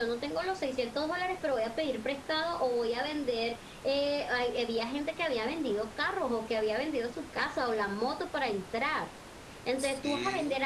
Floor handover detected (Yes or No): No